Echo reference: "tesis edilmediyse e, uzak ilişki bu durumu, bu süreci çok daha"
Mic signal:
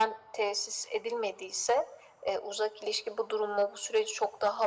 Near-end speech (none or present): none